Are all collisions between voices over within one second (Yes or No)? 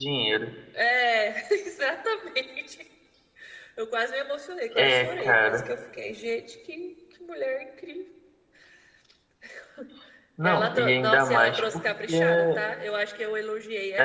No